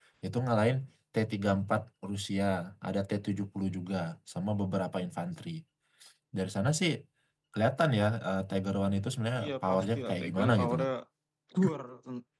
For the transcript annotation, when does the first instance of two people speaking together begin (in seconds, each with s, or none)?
9.4 s